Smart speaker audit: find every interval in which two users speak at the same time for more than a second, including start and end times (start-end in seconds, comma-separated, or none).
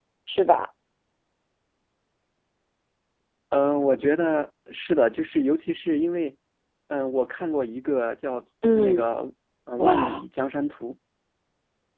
none